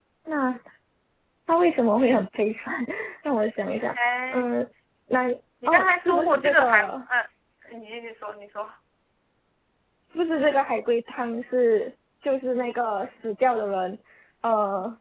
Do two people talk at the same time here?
Yes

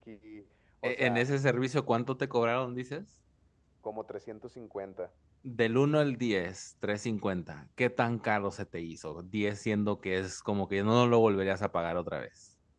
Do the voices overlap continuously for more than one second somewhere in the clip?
No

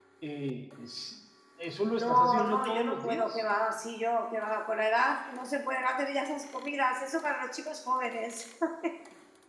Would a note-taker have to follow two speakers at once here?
Yes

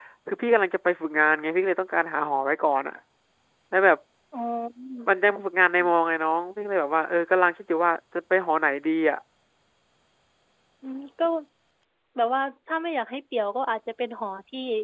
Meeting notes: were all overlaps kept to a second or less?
Yes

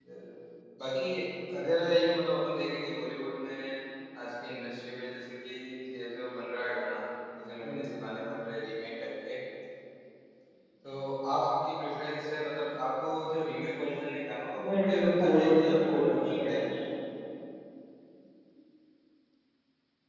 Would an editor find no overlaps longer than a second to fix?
No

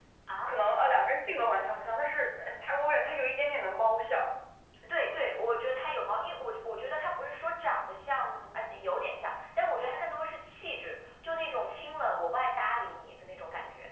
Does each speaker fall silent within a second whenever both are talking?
Yes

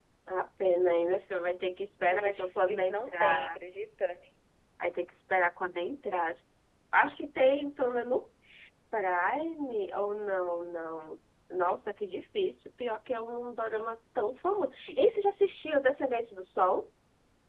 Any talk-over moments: Yes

